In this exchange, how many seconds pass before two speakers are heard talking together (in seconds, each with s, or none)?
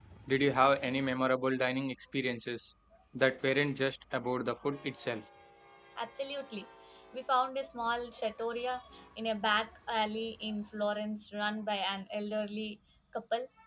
none